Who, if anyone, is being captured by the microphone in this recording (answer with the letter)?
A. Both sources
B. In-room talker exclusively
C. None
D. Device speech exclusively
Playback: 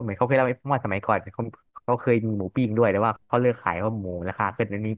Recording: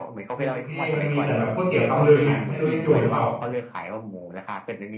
A